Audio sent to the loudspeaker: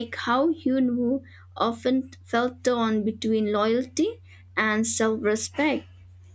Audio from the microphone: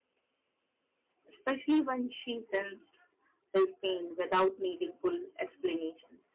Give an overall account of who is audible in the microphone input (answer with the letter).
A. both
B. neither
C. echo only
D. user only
D